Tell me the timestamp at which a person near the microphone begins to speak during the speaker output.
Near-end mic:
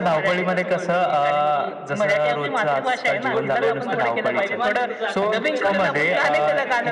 3.3 s

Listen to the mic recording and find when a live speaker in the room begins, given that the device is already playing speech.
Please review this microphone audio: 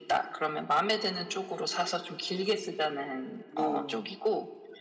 3.5 s

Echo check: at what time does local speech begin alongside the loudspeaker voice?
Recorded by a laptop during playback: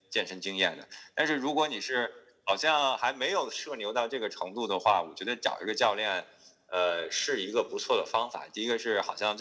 none

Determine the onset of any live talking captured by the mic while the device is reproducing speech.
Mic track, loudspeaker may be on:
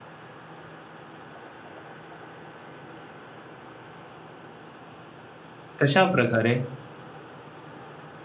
5.8 s

